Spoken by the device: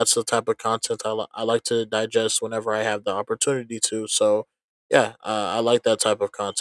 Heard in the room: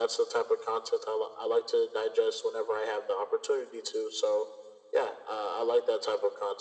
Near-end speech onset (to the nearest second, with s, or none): none